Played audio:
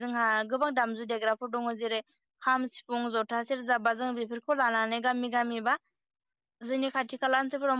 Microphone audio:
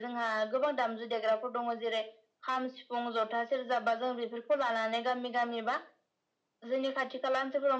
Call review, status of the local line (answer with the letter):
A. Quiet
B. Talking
A